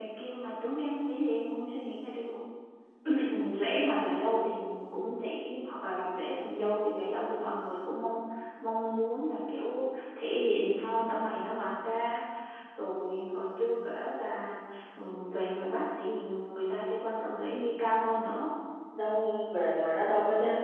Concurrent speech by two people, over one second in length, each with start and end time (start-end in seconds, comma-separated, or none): none